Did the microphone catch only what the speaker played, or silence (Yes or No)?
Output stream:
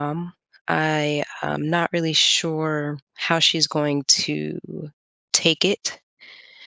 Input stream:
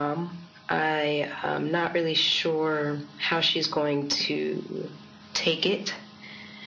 Yes